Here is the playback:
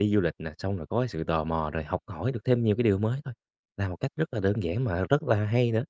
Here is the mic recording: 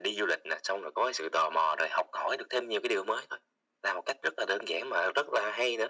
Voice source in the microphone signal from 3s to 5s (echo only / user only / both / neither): echo only